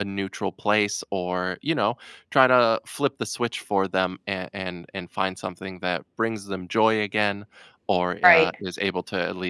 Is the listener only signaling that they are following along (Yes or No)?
Yes